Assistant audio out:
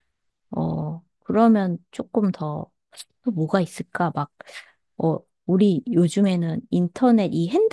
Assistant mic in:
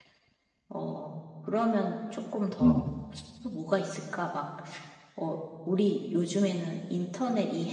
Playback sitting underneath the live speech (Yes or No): Yes